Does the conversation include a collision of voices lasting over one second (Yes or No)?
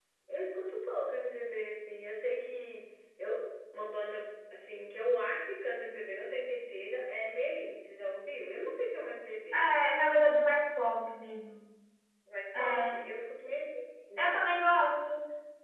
No